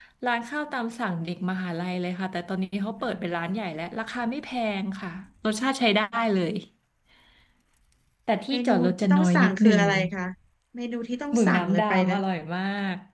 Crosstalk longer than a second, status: present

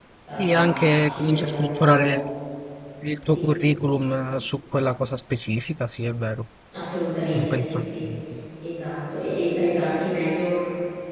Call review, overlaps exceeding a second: present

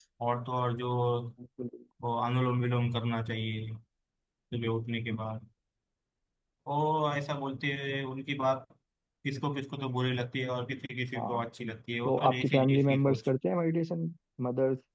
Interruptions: present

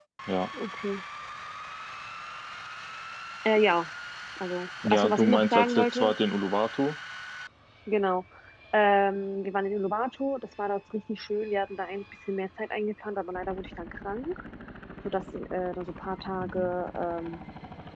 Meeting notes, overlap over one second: present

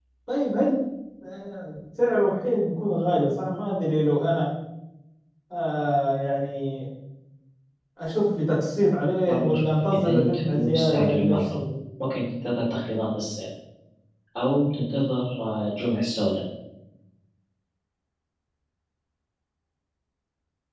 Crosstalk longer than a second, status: present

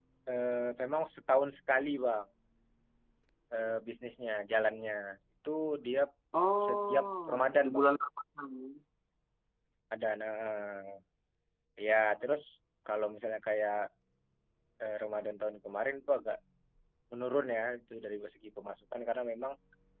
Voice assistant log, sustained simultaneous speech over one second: present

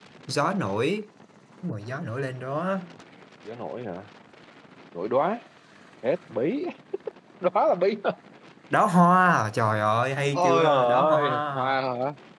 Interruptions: present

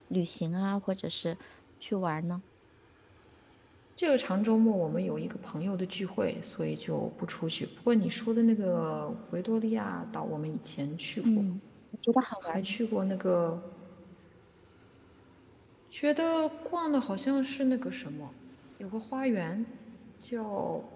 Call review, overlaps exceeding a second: none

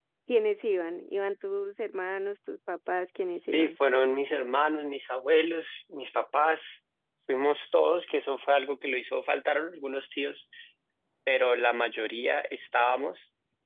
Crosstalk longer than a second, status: none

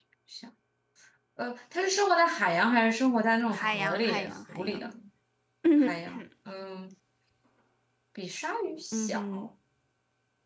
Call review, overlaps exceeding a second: present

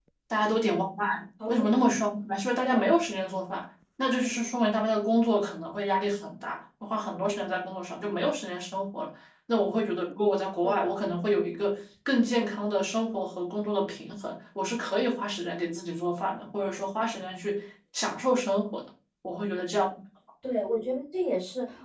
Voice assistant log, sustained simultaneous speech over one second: none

